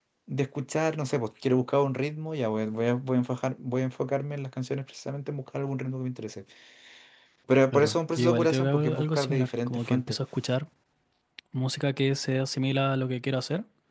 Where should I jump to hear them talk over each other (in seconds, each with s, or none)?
7.7 s